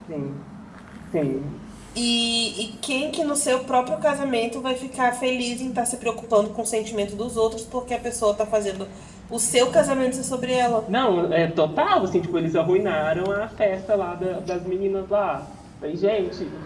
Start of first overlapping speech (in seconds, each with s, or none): none